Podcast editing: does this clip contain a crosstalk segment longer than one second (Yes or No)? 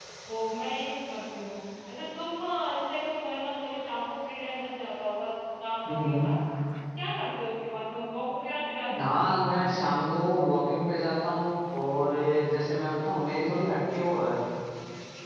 No